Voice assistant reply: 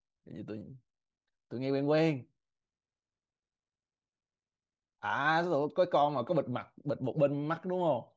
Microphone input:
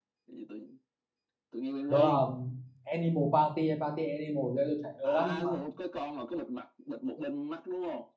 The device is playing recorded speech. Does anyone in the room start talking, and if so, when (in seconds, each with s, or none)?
1.9 s